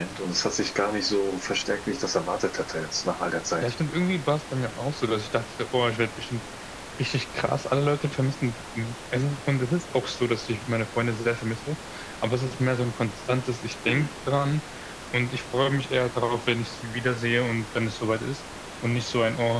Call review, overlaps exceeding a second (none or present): none